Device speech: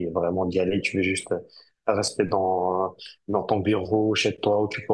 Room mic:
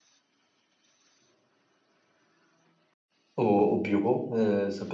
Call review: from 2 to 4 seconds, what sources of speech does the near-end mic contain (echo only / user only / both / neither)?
user only